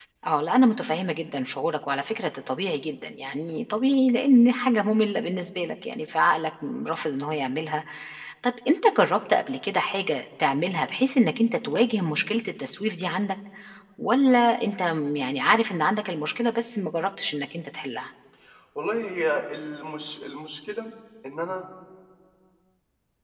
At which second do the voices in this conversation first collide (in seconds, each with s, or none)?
none